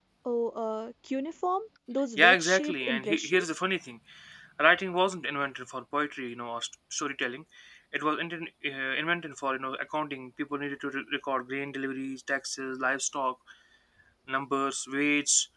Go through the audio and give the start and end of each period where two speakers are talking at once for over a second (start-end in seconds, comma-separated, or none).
2.2-3.6